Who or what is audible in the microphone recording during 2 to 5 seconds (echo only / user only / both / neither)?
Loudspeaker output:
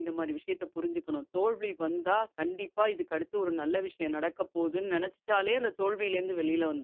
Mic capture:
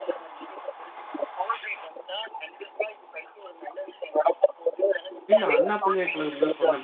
echo only